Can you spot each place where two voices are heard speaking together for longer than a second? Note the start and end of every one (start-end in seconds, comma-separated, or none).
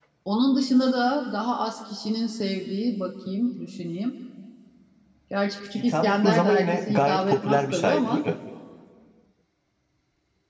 5.8-8.2